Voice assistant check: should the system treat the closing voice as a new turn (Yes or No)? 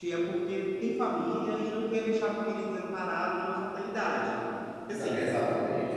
Yes